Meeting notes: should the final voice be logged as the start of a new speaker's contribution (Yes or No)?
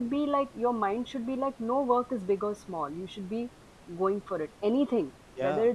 No